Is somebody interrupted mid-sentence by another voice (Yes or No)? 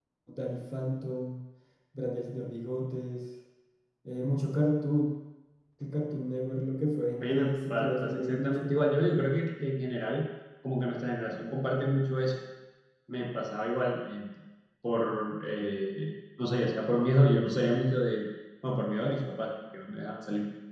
Yes